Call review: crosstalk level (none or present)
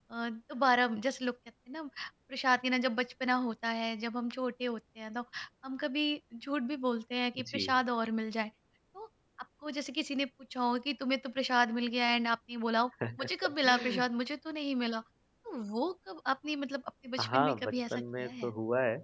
present